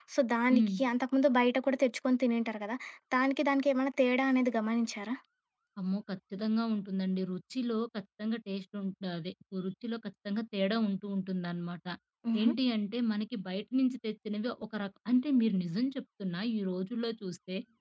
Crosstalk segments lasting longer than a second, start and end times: none

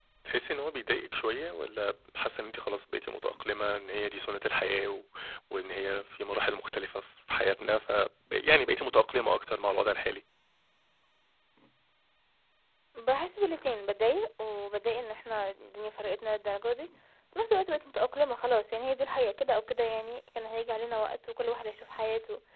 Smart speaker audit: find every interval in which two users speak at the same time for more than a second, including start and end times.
none

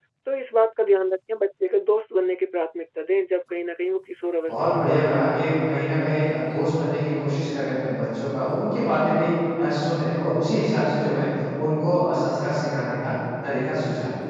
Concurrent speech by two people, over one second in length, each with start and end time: 4.5-5.9

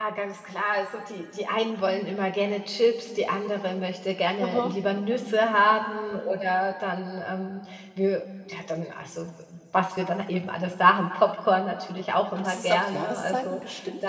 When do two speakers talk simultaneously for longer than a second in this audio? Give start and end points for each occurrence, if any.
12.4-13.6

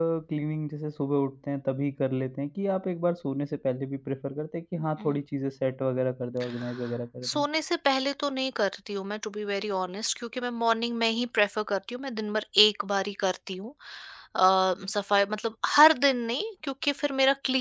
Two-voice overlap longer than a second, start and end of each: none

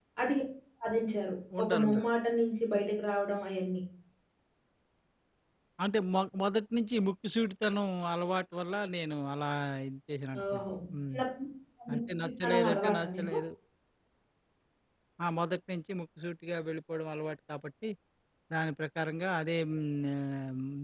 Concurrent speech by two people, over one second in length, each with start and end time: 11.9-13.3

